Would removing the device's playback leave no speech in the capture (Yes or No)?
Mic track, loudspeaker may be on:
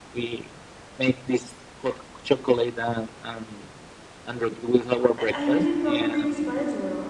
No